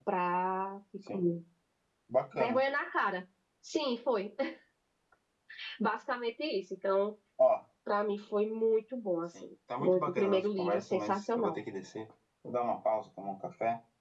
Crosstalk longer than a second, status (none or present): present